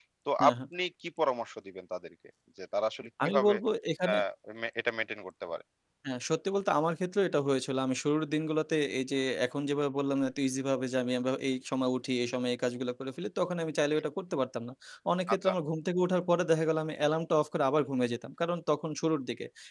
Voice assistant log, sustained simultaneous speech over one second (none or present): none